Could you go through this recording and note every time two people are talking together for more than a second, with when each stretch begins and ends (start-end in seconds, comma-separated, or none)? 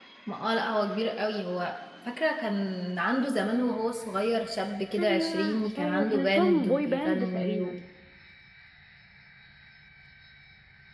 5.0-7.8